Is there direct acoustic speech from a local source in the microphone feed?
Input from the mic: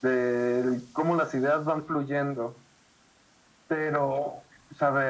No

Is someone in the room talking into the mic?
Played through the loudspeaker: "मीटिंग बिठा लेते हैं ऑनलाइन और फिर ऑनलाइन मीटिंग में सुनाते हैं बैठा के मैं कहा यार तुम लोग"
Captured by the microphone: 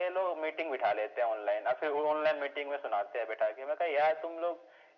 No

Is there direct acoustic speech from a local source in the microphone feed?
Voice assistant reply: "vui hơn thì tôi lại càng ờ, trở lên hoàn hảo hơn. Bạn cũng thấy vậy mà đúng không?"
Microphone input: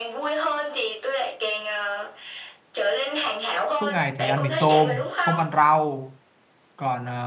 Yes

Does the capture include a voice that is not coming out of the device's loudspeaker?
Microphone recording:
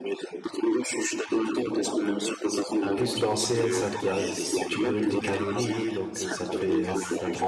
Yes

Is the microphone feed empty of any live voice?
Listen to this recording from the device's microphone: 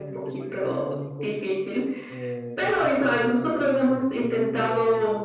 No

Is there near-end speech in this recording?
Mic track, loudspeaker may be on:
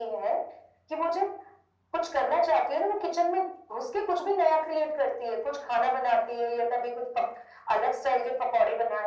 No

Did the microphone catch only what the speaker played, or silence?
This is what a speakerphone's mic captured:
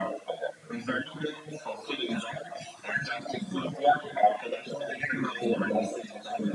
Yes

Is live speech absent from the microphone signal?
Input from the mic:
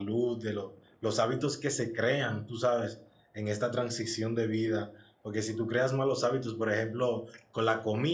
No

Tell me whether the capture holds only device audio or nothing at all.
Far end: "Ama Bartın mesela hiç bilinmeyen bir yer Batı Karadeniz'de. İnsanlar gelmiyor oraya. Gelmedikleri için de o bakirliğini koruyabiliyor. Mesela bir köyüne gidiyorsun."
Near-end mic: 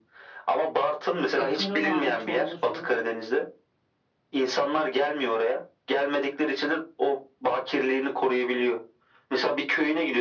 No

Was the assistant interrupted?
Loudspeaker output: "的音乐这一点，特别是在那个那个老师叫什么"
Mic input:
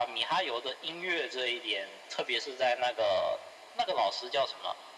No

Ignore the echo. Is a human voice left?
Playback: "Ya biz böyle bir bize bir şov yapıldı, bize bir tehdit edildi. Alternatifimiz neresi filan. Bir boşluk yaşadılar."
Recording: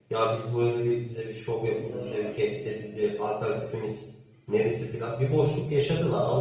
Yes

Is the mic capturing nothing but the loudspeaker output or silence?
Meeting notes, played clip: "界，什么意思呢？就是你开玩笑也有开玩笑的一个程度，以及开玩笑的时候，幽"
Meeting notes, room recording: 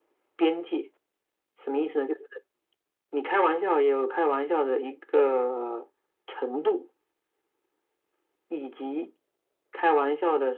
Yes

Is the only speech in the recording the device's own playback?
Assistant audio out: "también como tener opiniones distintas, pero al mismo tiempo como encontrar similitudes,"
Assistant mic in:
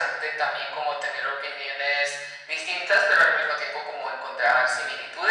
Yes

